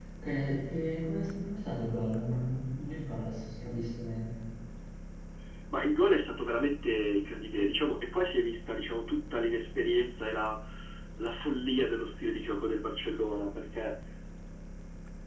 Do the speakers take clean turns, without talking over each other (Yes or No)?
Yes